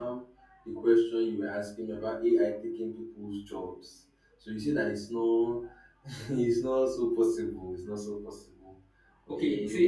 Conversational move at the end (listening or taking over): taking over